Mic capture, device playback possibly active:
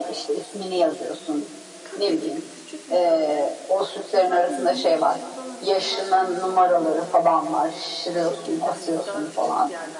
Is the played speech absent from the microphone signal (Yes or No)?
No